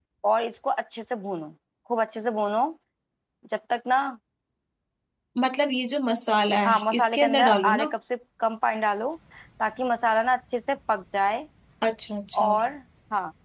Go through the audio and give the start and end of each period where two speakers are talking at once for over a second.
6.7-7.8

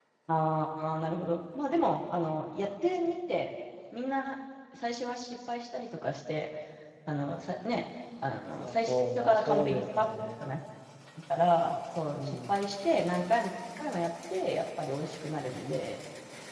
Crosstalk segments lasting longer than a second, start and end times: 8.6-10.1

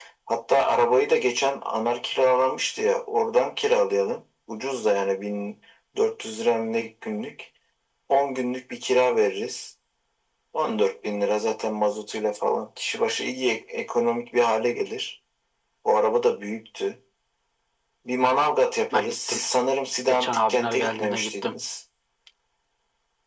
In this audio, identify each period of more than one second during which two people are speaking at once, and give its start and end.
20.1-21.6

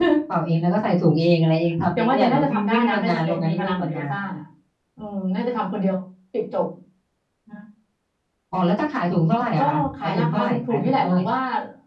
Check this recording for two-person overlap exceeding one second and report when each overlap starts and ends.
2.0-4.1, 9.6-11.2

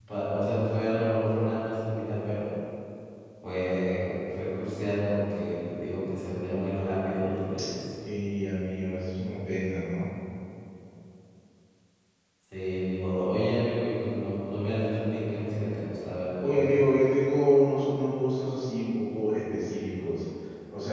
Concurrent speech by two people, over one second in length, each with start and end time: none

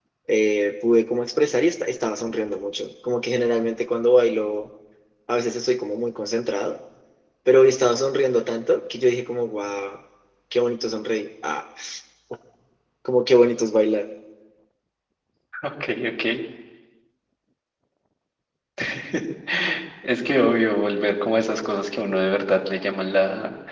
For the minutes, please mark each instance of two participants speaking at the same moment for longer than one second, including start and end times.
none

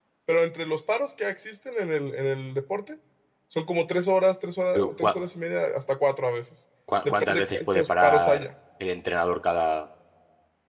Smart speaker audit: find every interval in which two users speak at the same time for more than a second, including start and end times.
7.0-8.4

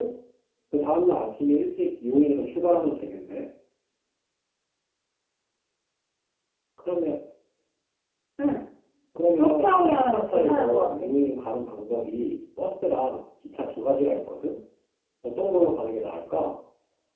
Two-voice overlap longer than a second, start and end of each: 9.3-11.1

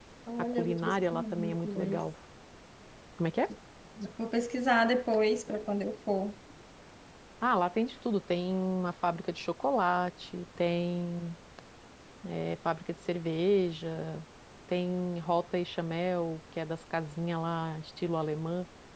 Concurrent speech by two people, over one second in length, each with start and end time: 0.5-2.0

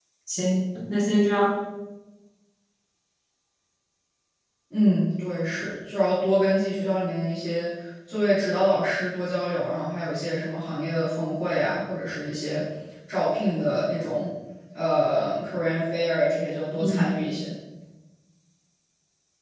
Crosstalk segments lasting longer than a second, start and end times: none

